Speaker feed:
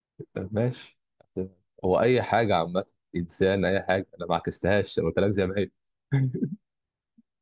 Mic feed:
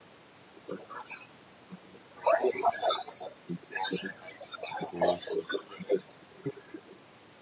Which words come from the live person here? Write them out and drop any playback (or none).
قول كده